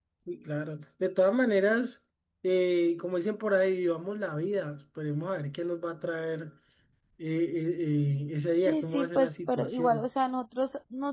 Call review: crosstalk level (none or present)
present